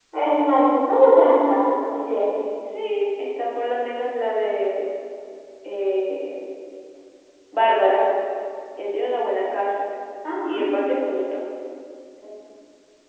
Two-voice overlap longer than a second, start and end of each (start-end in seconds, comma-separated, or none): none